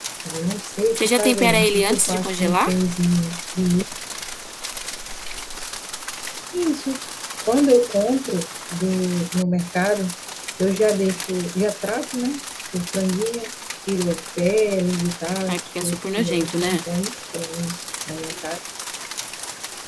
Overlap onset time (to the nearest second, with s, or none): 1 s